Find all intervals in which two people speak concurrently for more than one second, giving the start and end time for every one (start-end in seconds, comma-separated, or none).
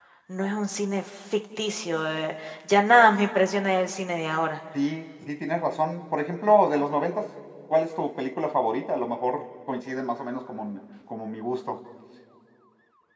none